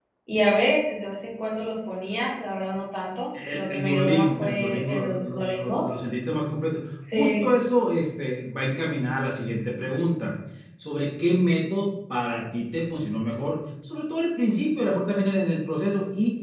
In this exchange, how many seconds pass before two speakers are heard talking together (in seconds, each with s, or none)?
3.5 s